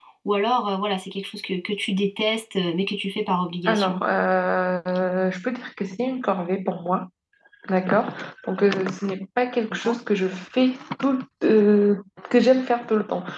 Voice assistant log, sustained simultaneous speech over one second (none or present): none